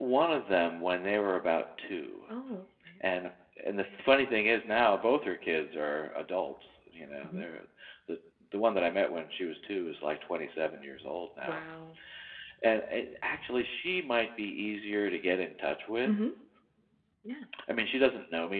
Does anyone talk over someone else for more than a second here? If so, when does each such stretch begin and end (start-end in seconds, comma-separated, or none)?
none